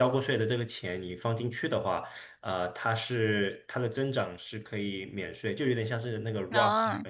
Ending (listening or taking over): listening